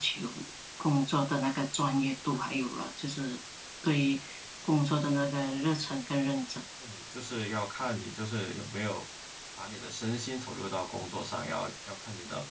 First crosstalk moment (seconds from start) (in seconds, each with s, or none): none